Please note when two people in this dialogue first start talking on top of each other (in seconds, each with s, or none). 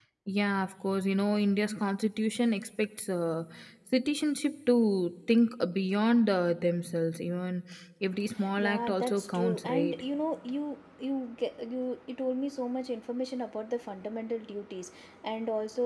8.6 s